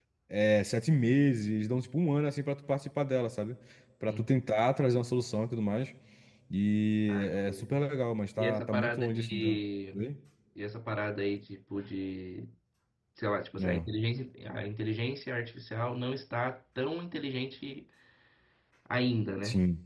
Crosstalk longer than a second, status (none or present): present